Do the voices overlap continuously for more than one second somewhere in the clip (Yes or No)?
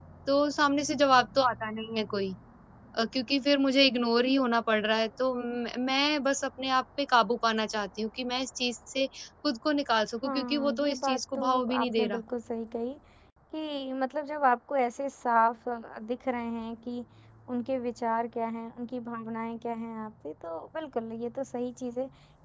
Yes